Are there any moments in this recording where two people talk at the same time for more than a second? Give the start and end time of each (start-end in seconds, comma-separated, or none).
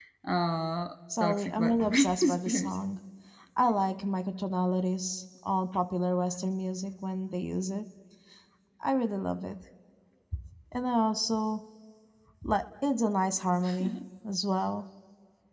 1.2-2.8